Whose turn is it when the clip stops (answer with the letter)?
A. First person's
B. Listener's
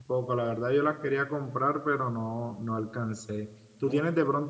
A